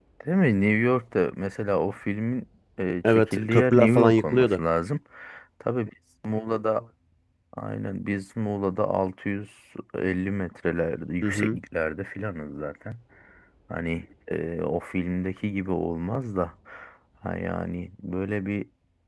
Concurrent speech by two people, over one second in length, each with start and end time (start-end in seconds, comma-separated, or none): 3.0-4.6